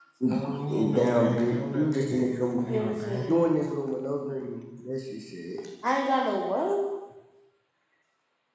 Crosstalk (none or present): present